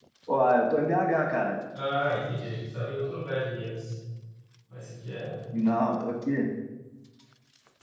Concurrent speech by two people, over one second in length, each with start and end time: none

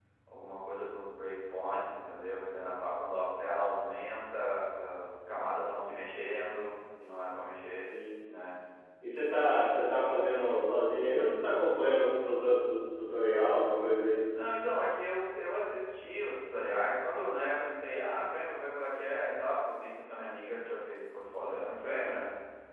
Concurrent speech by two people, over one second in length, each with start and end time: none

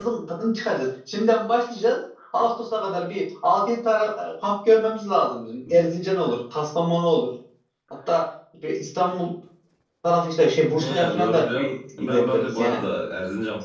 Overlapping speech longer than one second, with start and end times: 10.8-12.8

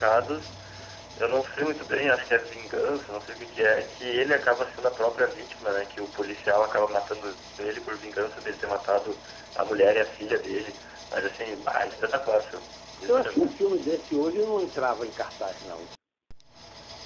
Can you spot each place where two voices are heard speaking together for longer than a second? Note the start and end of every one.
none

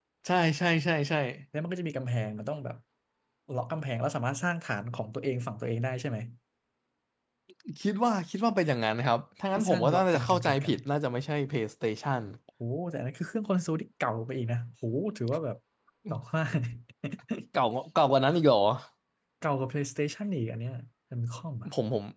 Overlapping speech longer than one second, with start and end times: 9.6-10.8

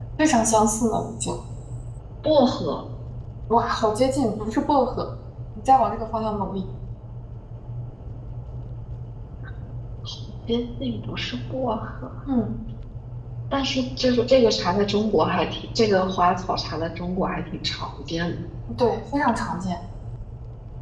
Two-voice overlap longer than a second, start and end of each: none

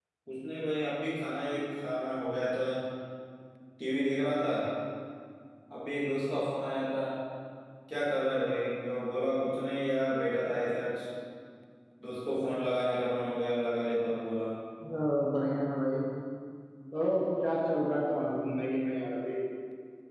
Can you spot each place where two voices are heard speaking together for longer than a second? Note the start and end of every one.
none

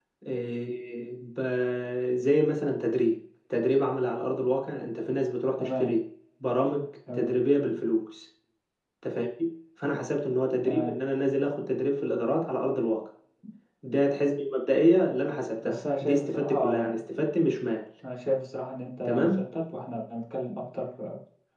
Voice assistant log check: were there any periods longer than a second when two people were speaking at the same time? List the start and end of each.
15.6-17.0

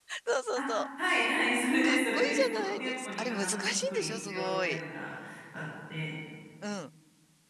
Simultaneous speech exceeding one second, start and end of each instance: 1.8-4.8

